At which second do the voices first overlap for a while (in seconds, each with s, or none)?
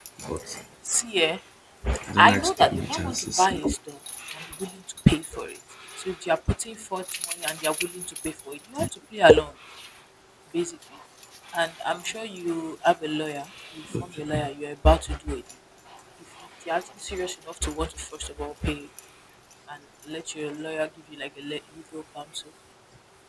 2.1 s